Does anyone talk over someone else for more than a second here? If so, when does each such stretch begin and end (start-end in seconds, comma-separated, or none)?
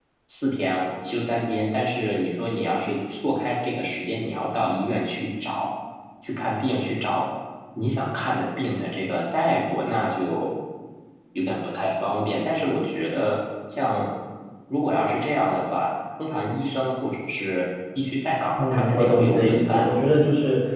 18.6-19.9